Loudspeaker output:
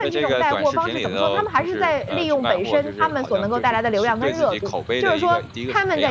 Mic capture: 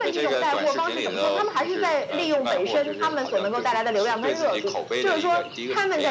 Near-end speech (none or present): none